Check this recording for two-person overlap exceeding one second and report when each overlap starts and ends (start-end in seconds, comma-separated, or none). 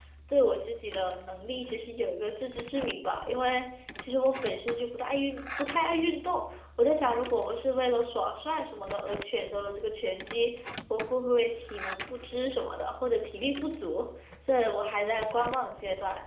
none